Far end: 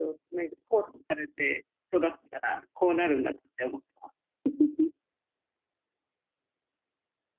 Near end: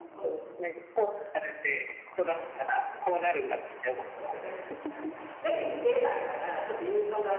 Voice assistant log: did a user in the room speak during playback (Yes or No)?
Yes